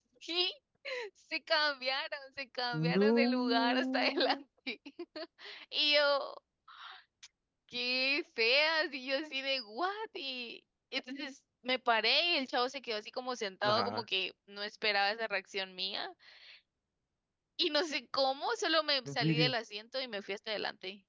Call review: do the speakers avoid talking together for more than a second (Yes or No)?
No